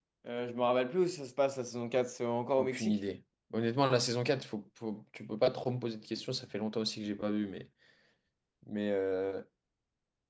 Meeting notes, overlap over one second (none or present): none